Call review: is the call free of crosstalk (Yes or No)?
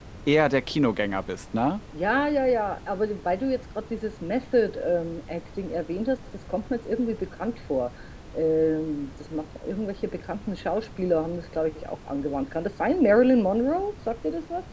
Yes